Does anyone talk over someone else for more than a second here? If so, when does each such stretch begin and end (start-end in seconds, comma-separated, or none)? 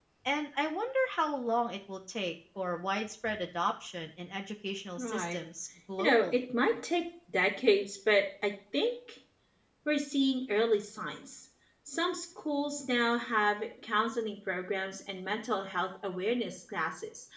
none